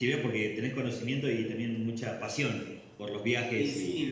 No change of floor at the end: No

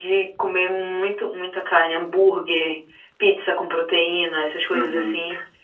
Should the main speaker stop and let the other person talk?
Yes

